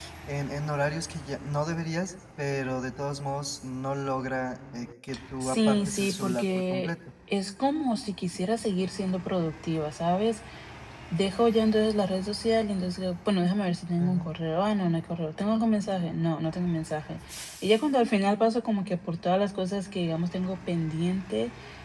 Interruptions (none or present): present